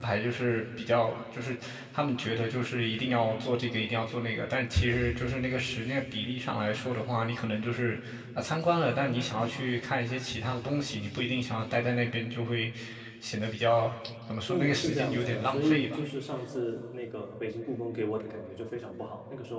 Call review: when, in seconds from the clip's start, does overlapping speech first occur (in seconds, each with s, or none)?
14.5 s